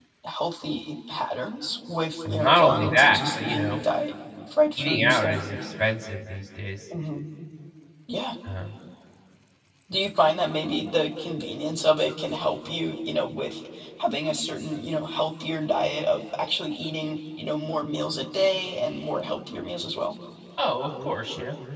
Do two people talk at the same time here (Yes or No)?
Yes